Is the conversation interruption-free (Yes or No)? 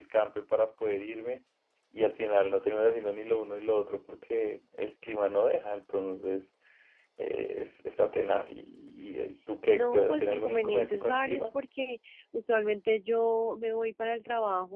No